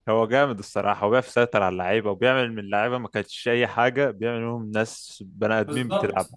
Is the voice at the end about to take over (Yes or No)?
Yes